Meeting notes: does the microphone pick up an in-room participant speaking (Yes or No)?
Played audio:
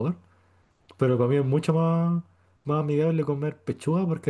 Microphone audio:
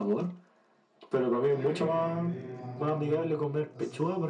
Yes